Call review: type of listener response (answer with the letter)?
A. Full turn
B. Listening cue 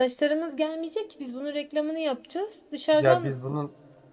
A